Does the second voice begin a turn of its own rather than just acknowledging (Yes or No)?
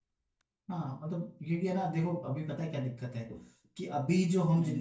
No